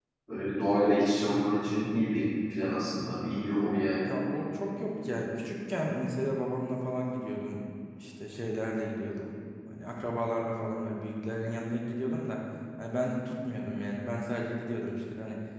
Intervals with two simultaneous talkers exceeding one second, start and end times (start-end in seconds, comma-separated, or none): none